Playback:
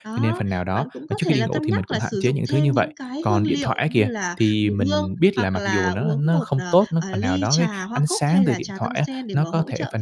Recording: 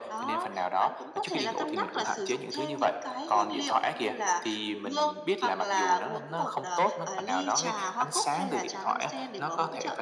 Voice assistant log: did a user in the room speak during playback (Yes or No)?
No